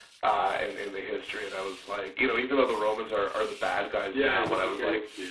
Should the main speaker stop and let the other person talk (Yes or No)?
Yes